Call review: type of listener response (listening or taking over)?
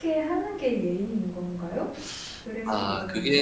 taking over